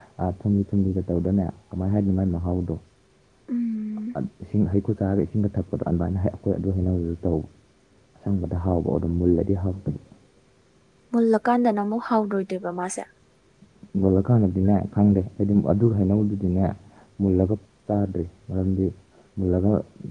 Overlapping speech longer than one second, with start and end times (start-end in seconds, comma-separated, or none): none